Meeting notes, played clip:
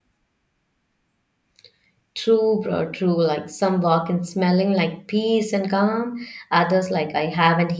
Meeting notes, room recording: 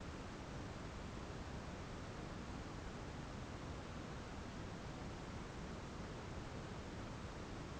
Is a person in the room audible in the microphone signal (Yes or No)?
No